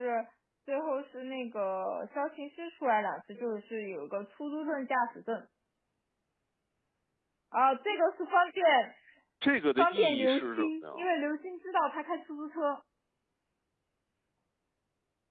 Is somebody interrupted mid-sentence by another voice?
Yes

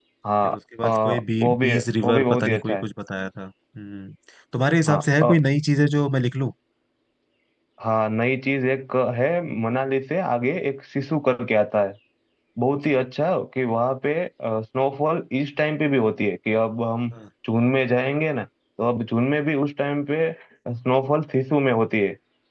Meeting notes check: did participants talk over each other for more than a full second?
Yes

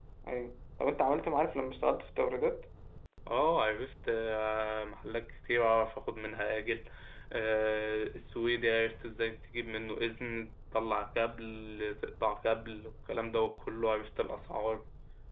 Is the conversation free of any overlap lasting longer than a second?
Yes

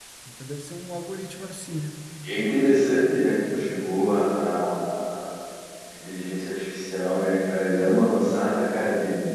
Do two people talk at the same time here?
No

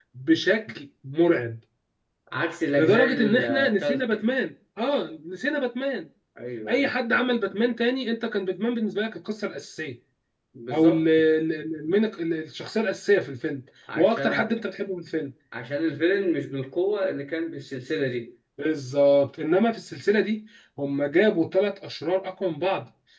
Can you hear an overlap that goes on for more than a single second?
Yes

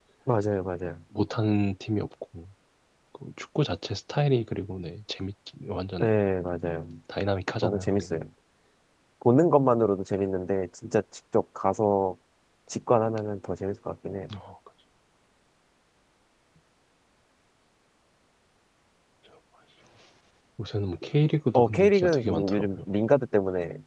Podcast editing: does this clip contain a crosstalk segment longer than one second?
Yes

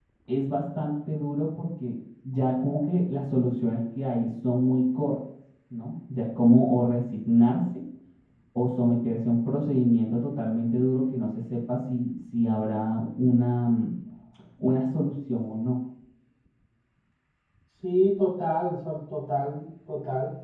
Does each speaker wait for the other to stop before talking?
Yes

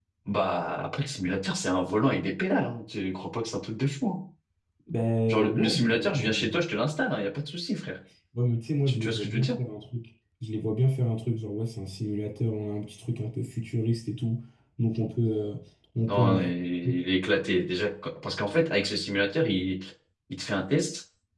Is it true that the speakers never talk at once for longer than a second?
No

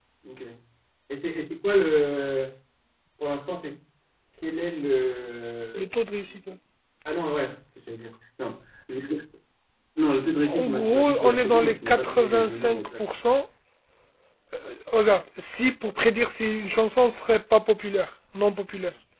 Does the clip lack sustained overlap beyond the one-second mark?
No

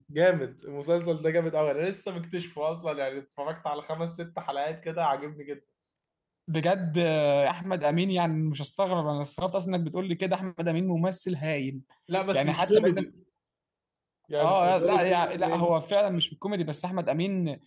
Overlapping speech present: Yes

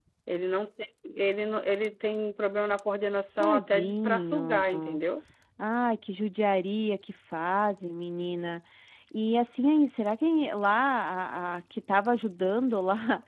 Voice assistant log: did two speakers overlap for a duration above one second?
Yes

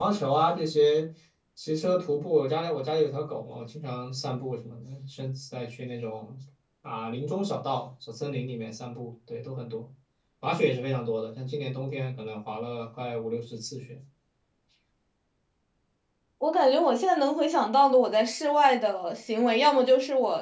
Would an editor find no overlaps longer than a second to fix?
Yes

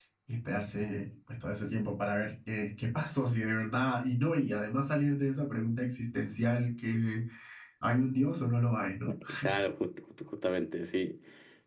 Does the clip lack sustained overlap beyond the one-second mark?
Yes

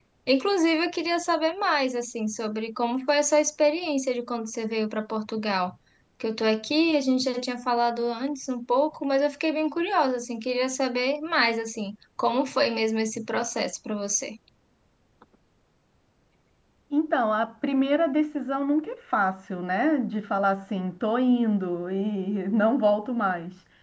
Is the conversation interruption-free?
Yes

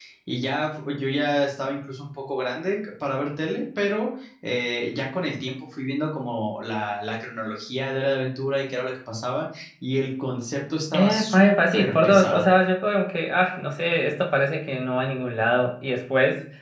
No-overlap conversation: No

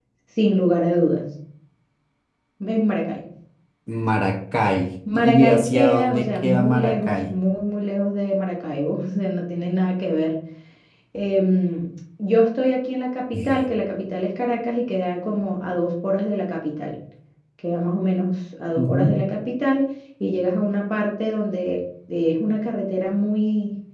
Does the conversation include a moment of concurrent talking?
Yes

